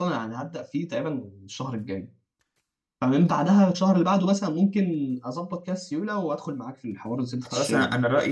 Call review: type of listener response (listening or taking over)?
taking over